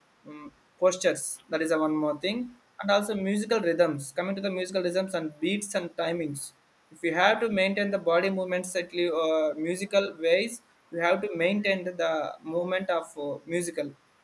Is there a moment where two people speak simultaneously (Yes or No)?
No